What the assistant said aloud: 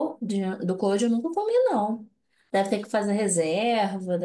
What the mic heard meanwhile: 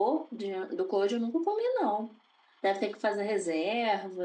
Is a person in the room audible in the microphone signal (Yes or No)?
No